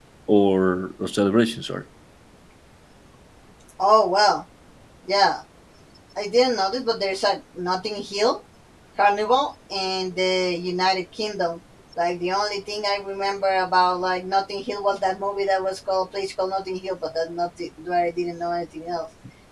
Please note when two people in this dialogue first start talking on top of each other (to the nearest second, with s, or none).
none